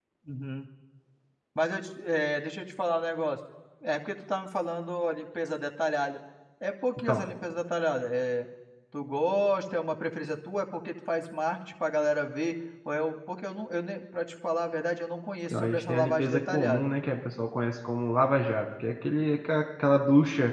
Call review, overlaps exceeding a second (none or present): present